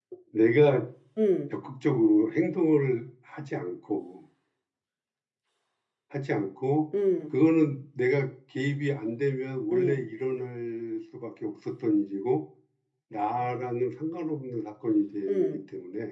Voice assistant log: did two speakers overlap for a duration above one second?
No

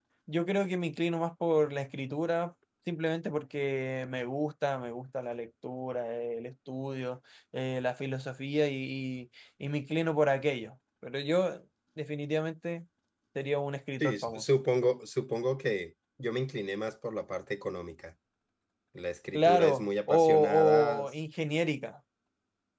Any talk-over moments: Yes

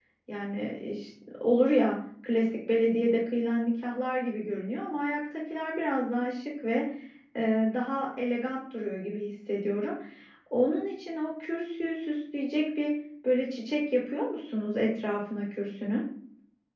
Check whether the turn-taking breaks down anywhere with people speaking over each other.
No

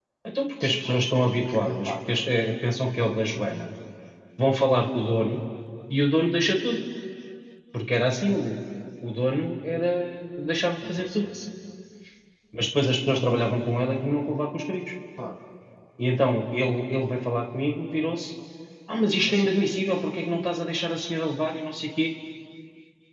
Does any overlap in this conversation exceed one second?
Yes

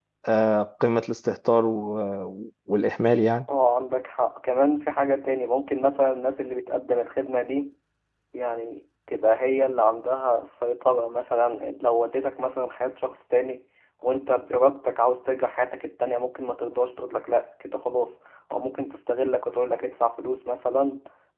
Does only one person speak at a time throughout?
Yes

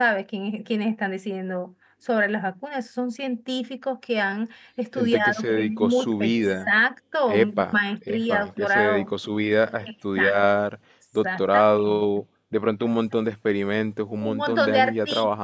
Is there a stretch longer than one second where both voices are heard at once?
Yes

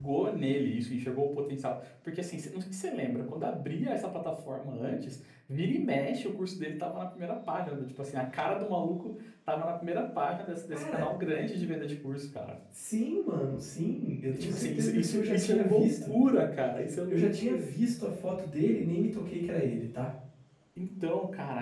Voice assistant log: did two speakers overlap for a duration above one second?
Yes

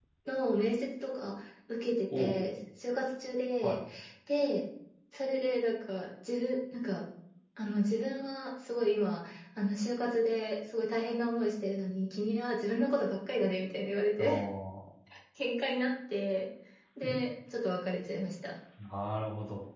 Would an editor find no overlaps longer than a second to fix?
Yes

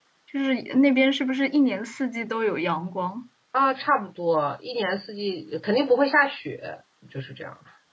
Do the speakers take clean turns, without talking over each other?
Yes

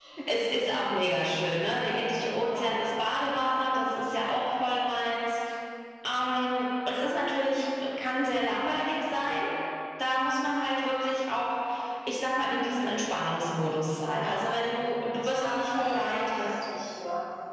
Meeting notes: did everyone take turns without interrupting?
No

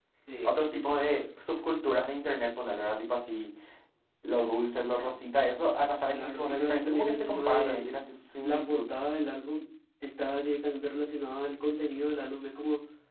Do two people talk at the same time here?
Yes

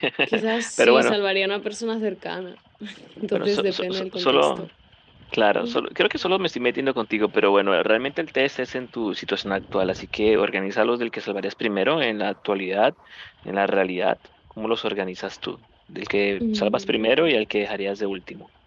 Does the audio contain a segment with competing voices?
Yes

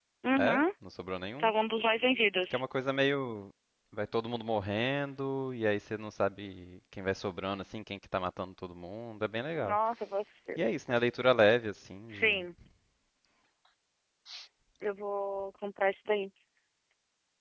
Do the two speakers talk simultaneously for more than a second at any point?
No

